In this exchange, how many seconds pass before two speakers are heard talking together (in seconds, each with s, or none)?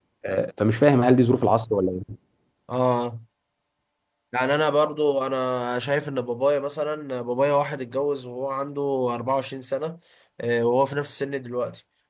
none